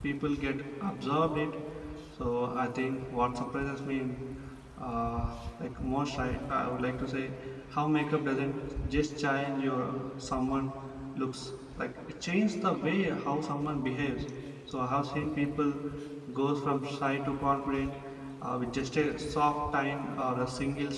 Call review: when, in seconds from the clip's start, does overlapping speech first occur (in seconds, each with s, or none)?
none